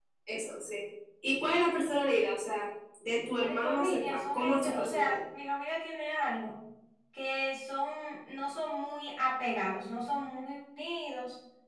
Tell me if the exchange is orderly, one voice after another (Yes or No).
No